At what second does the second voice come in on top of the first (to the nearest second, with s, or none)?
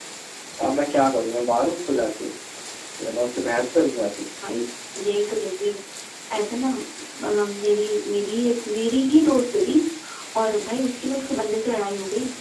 none